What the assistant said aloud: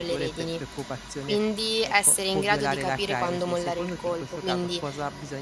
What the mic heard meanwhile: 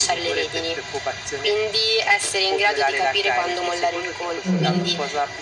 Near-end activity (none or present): present